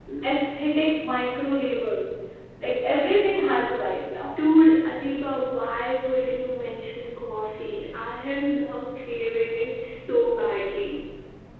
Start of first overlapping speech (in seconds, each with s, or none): none